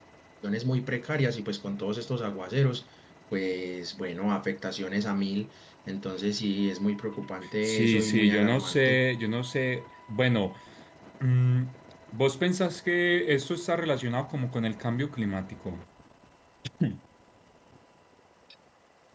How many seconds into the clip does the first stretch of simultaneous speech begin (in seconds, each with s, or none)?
7.6 s